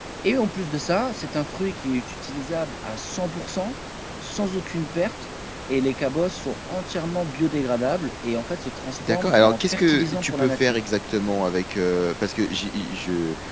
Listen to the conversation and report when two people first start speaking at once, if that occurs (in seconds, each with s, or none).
9.0 s